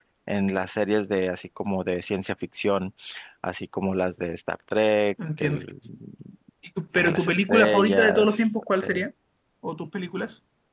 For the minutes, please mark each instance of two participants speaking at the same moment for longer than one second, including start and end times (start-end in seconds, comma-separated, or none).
6.9-8.5